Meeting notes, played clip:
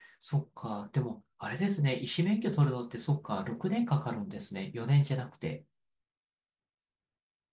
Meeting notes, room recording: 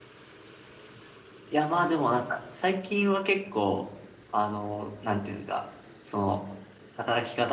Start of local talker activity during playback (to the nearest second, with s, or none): 1 s